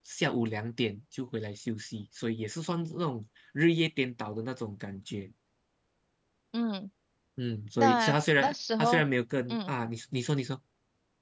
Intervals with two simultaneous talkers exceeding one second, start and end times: 7.8-9.0

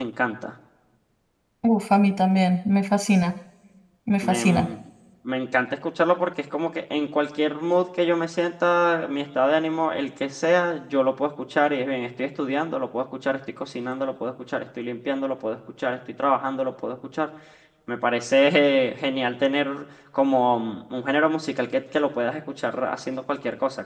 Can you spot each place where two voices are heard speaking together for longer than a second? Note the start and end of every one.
none

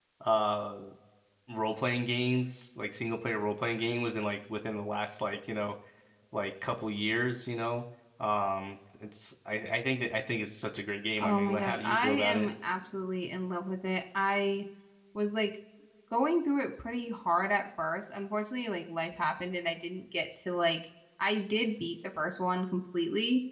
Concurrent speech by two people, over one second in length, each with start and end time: 11.2-12.5

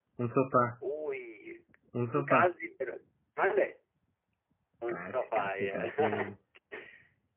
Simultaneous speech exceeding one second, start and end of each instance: 4.9-6.3

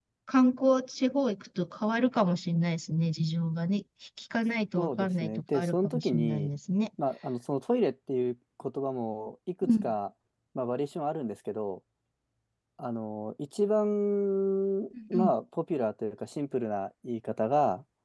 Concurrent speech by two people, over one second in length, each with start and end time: 4.8-6.5

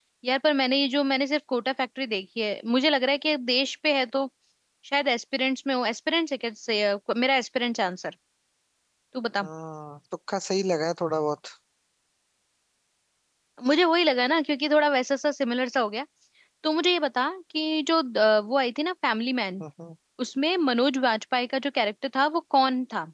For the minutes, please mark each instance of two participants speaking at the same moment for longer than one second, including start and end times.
none

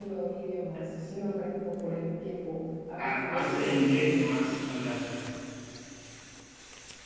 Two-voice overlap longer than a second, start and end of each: 3.0-4.3

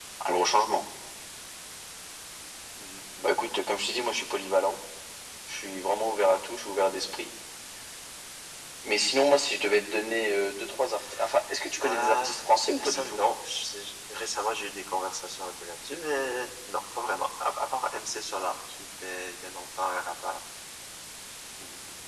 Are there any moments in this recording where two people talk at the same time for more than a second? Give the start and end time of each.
none

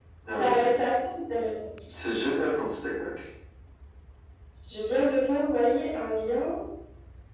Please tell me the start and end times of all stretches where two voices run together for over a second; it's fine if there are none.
none

